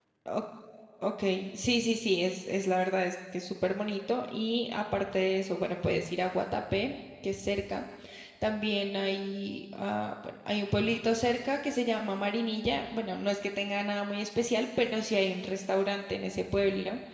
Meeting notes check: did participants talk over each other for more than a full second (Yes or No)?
No